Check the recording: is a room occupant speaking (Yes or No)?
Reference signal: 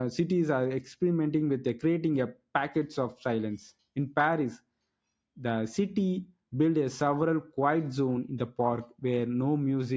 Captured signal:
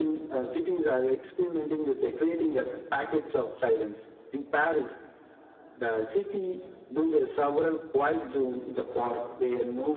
No